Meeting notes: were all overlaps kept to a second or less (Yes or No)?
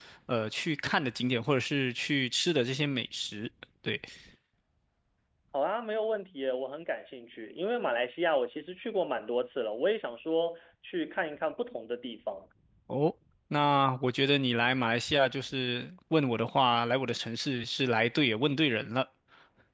Yes